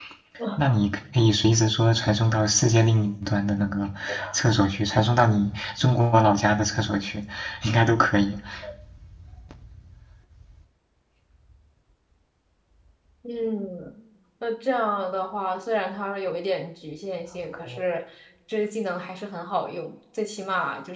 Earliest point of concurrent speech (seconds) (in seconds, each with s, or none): none